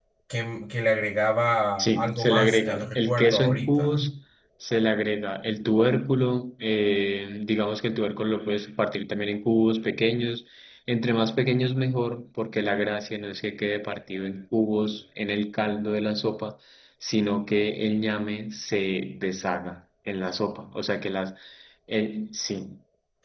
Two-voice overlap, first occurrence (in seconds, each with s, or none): 1.8 s